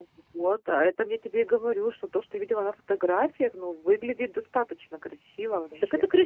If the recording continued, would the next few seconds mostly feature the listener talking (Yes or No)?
Yes